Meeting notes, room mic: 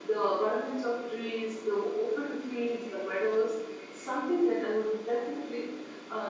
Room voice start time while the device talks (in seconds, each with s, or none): none